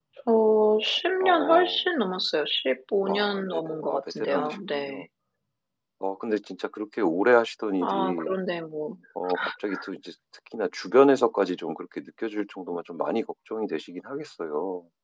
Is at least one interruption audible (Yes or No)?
Yes